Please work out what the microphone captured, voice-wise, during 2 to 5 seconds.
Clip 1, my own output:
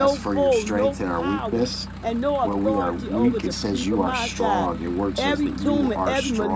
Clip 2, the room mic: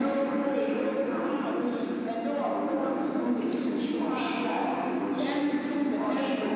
echo only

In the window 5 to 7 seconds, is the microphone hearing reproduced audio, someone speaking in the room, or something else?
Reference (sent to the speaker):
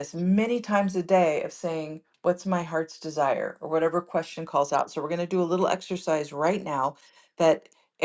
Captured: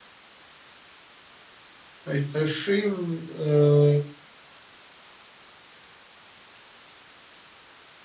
neither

